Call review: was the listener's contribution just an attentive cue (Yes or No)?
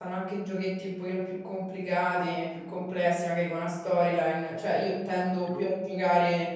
Yes